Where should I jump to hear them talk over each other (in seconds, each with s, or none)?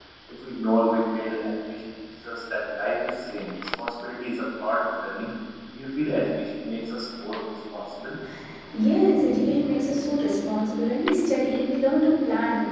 none